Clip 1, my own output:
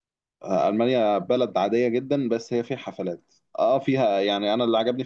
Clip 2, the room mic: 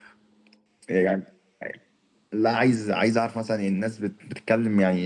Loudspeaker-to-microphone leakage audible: No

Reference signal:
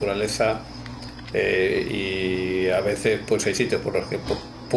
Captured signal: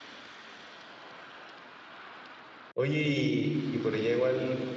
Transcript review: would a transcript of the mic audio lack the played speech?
Yes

